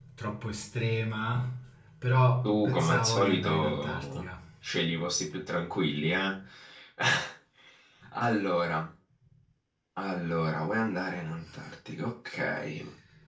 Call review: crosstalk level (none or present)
present